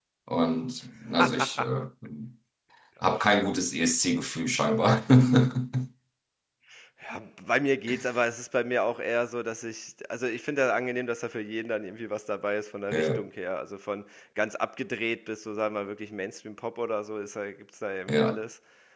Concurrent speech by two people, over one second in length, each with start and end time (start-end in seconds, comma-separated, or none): none